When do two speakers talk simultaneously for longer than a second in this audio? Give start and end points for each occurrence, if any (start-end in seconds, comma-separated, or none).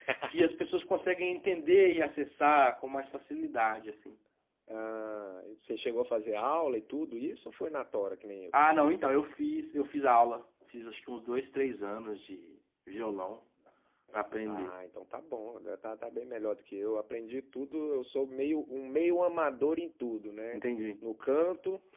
none